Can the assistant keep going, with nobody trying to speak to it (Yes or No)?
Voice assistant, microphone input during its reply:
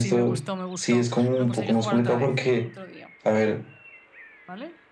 No